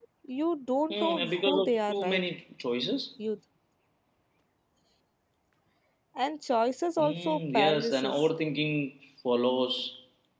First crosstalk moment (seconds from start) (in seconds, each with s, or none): 0.9 s